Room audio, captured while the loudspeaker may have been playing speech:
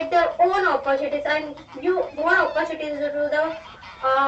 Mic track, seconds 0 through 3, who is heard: echo only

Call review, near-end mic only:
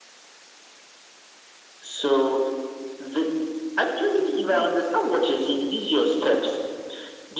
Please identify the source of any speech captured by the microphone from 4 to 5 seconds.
both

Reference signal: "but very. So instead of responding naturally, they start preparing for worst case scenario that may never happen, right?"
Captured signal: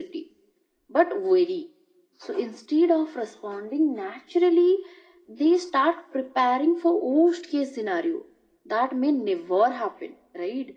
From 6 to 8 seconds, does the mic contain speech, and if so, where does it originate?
echo only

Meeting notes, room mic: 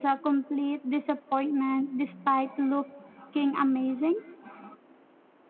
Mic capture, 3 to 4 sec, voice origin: user only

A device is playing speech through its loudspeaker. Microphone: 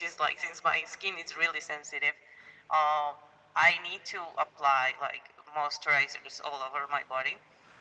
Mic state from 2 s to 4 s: echo only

